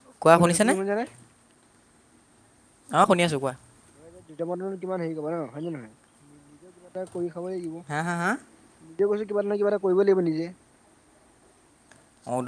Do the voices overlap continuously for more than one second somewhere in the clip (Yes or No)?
No